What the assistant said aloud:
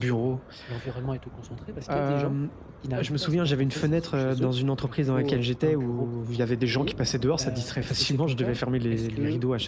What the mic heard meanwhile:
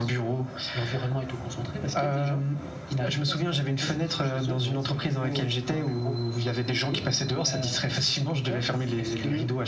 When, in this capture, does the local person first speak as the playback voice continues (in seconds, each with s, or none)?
4.6 s